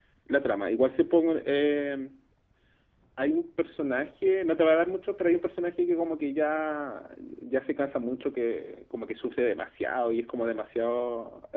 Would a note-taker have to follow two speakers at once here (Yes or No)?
No